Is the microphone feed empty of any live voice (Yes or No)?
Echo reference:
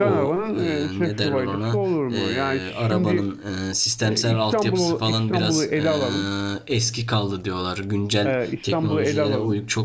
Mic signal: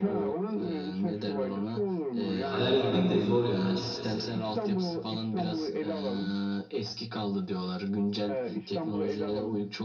No